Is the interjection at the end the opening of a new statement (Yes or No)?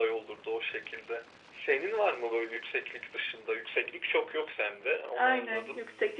Yes